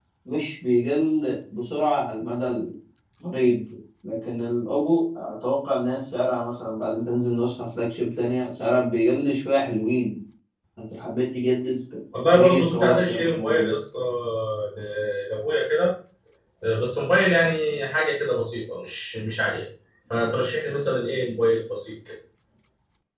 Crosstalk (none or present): present